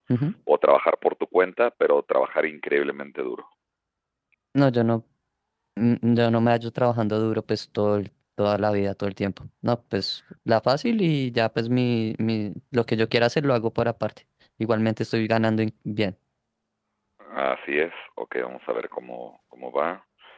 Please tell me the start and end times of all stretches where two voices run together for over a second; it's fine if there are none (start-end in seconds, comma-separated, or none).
none